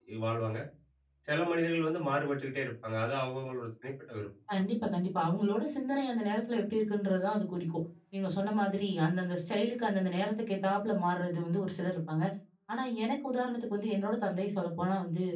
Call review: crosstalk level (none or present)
none